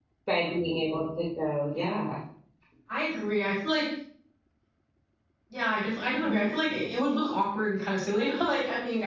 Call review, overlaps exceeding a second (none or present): none